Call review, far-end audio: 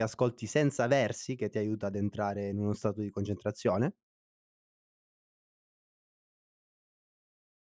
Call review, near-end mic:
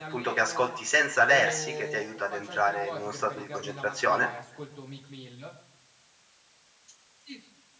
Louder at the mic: echo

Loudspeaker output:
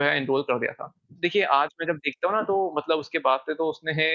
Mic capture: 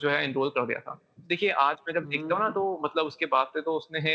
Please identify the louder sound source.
echo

